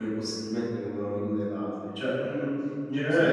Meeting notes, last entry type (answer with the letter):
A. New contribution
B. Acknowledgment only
B